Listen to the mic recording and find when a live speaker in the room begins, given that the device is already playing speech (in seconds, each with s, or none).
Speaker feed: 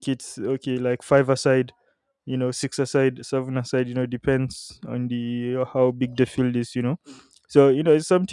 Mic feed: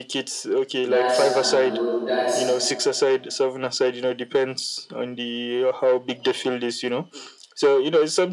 0.8 s